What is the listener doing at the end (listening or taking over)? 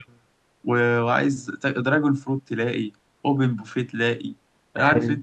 listening